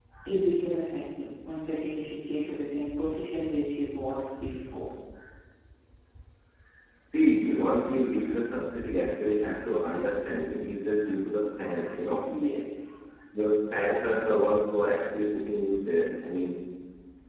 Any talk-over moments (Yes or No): No